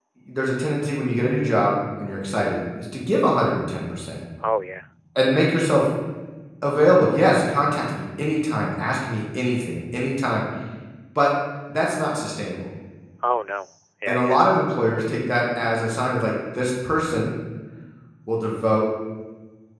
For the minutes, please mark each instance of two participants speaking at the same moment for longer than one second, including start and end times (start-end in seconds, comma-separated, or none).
none